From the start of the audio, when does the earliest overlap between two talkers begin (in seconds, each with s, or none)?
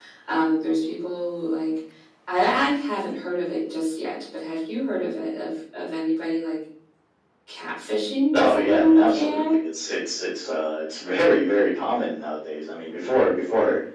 8.3 s